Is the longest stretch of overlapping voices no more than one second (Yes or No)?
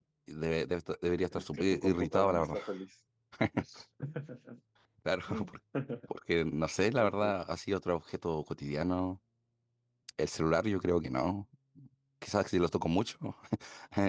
No